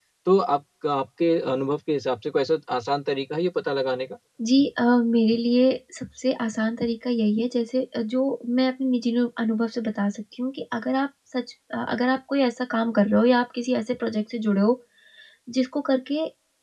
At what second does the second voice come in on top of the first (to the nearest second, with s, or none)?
none